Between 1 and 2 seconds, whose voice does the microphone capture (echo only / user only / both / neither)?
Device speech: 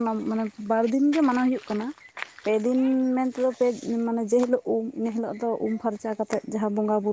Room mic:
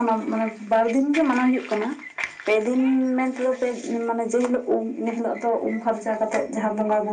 echo only